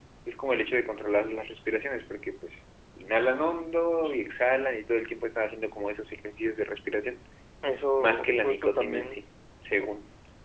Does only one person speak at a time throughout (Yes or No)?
No